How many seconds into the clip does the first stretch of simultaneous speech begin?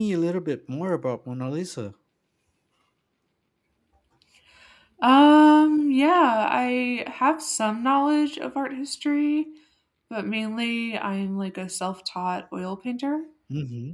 none

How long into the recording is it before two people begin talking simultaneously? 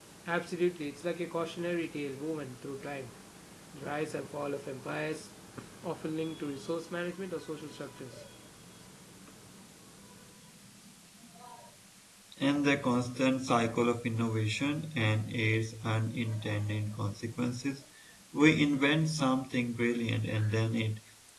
none

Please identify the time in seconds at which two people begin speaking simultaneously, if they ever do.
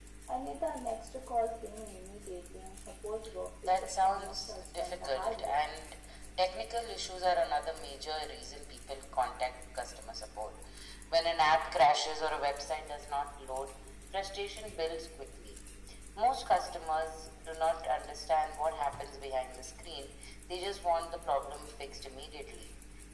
4 s

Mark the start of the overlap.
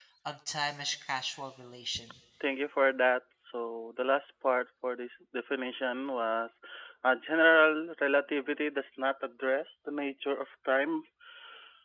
none

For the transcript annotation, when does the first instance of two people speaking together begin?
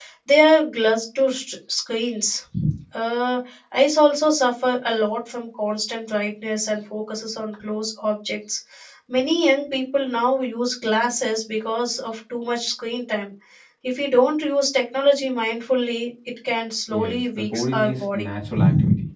17 s

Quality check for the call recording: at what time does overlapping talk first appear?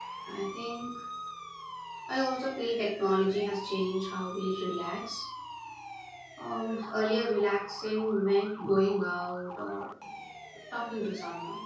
none

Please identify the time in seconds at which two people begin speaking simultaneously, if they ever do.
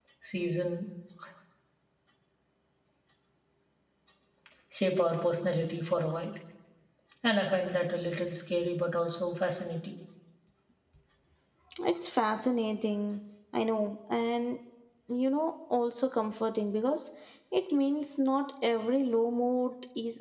none

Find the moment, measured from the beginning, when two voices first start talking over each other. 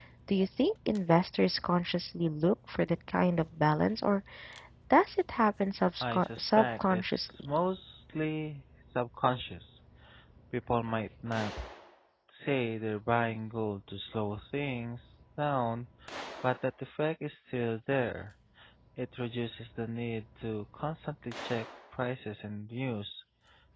6 s

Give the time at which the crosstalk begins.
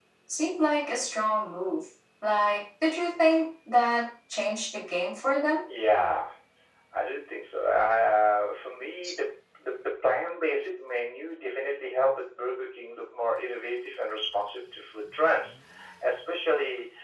none

